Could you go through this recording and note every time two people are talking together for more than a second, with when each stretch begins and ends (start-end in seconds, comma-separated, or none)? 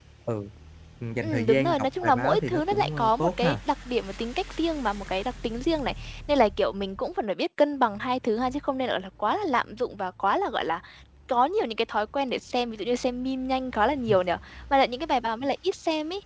1.2-3.6